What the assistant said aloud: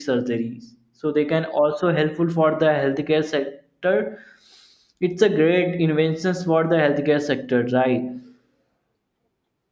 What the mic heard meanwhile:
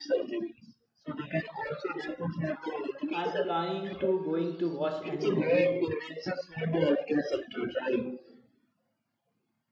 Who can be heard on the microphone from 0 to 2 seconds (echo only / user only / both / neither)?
echo only